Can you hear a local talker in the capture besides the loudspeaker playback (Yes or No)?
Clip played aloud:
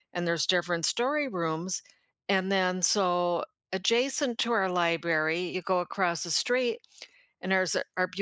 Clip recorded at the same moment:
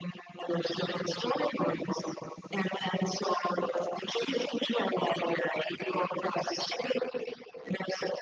No